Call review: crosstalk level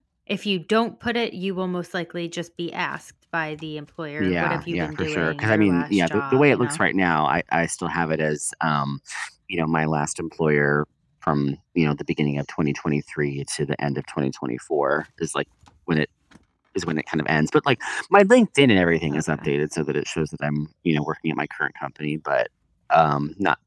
present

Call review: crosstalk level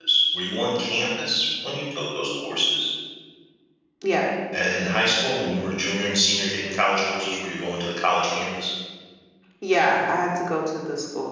none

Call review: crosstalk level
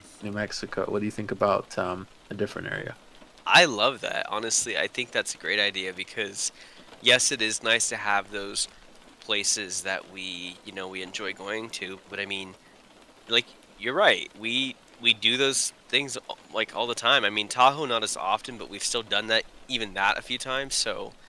none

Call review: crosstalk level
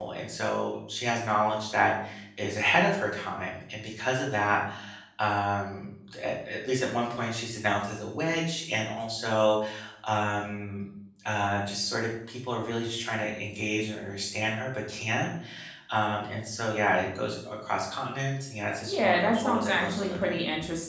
present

